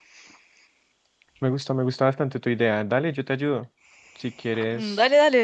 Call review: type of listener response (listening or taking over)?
taking over